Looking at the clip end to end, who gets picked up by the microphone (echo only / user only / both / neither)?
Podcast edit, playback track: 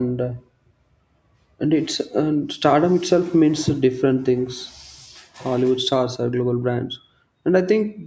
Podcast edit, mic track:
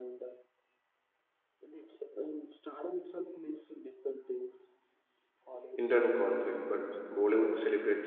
both